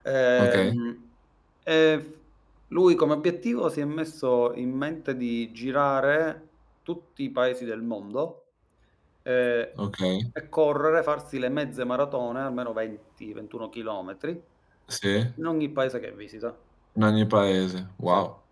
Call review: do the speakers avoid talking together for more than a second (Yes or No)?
Yes